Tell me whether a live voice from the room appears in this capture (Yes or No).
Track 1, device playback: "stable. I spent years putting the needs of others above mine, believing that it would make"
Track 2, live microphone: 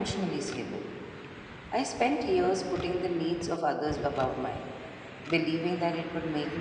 No